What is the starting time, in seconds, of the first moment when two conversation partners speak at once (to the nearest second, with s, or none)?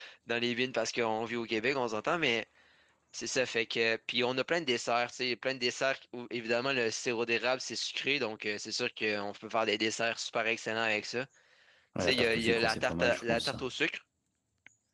12 s